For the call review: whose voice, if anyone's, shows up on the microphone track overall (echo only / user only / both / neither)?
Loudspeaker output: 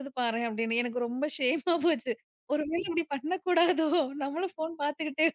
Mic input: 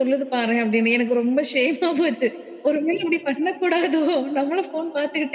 echo only